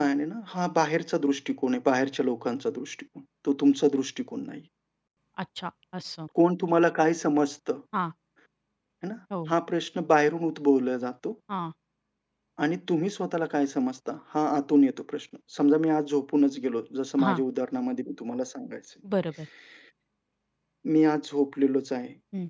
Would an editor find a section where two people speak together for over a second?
No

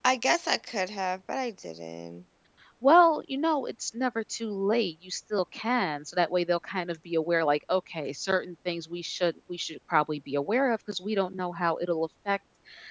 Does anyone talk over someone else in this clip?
No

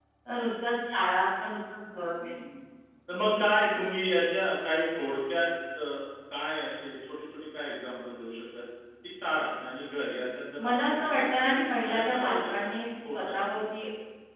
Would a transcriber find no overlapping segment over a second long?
No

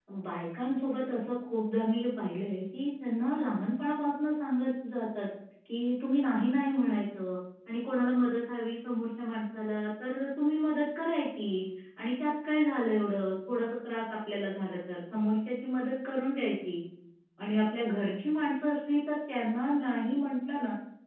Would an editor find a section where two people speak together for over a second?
No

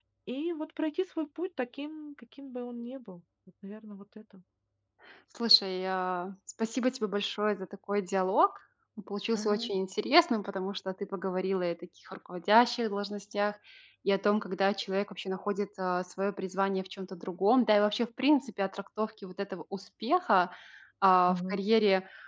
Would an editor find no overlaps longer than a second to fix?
Yes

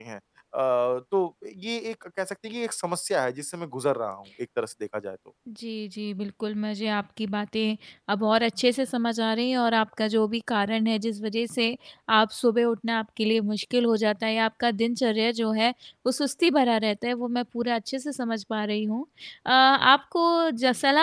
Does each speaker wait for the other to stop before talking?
Yes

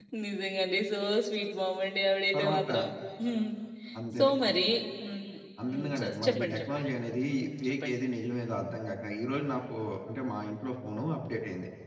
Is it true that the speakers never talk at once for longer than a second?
No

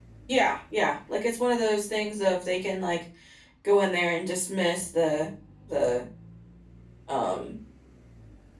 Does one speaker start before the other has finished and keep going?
No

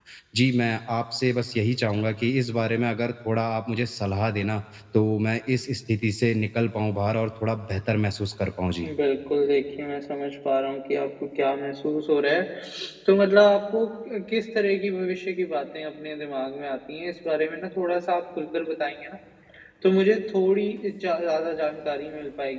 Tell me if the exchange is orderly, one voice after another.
Yes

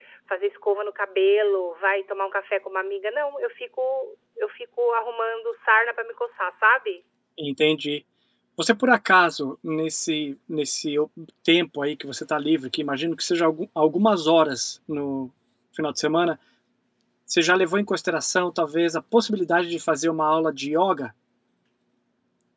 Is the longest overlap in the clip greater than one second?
No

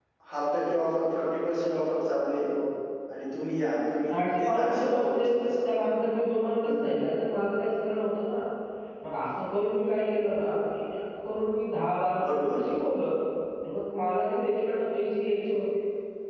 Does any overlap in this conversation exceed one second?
Yes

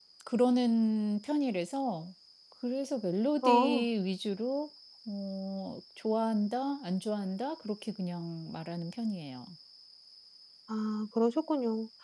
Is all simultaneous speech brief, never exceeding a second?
Yes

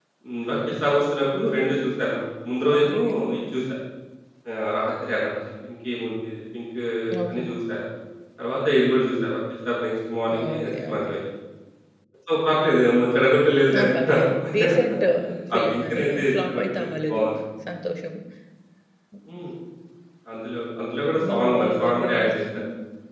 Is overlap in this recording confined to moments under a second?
No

